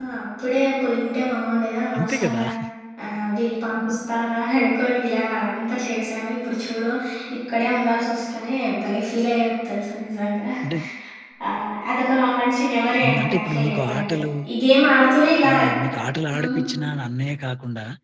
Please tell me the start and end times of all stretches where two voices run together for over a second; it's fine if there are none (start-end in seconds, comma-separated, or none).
13.0-14.2